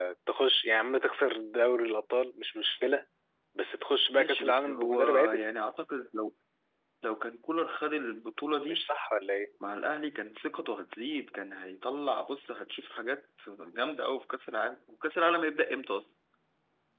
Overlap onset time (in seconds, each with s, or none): 4.1 s